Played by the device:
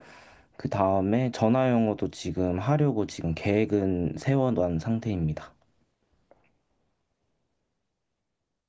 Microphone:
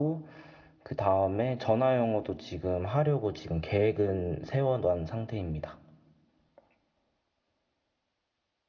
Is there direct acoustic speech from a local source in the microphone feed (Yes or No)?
No